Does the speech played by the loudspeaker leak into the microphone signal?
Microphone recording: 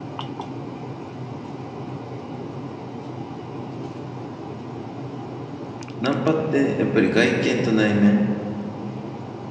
No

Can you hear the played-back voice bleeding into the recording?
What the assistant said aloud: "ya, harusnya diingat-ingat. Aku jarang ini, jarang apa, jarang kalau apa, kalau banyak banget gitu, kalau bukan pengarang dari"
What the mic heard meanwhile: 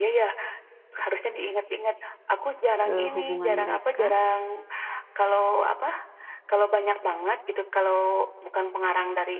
Yes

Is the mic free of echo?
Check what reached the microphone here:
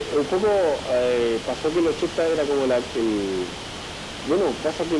No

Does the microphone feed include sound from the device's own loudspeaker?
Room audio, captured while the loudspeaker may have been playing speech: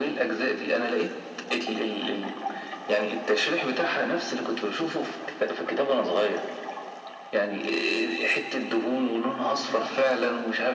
Yes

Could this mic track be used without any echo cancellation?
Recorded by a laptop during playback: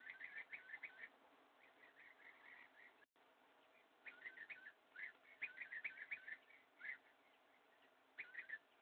Yes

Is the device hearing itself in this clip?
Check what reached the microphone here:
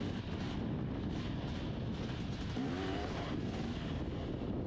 No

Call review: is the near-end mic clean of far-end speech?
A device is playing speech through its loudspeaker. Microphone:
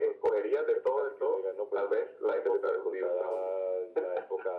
No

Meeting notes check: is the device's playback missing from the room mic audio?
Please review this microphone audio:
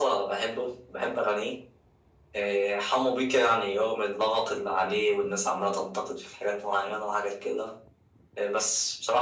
No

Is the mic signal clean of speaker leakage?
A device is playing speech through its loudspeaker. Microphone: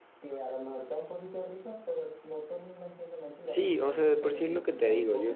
No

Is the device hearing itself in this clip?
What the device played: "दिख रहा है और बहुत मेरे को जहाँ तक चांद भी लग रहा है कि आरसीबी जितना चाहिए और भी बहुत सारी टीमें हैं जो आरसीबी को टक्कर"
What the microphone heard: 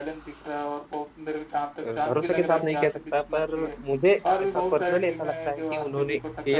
Yes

